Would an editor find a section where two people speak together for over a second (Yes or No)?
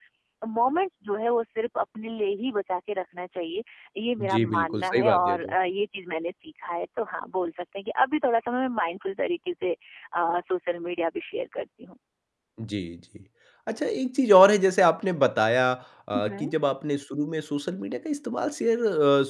Yes